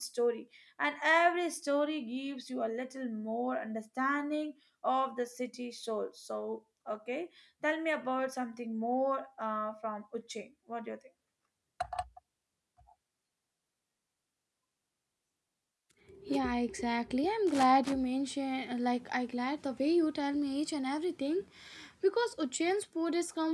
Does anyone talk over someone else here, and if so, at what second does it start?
none

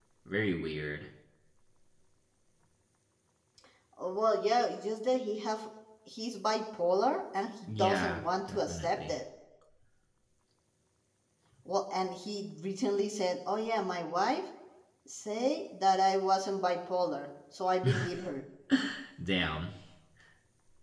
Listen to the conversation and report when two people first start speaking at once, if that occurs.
7.7 s

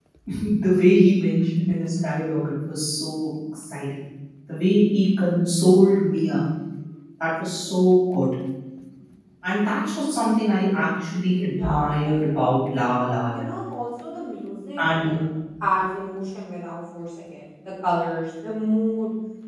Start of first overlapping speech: 11.6 s

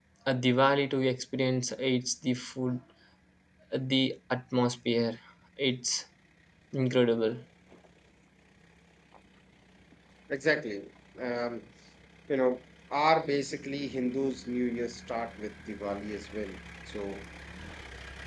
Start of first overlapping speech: none

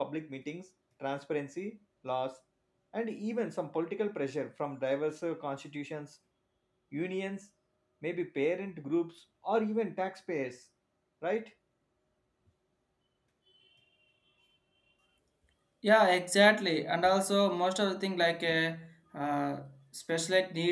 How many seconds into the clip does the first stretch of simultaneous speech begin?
none

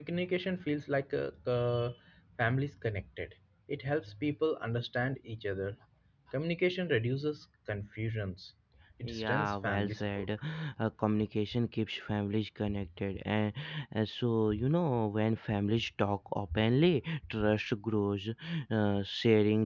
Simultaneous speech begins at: 9.0 s

